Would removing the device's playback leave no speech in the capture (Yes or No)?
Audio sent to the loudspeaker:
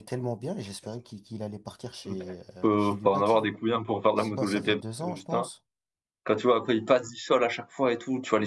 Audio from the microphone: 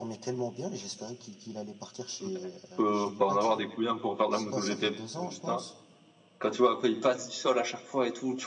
Yes